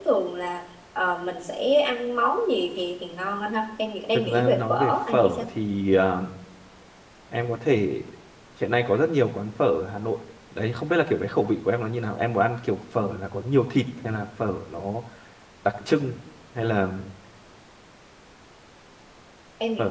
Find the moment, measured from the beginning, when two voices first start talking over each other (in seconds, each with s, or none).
4.1 s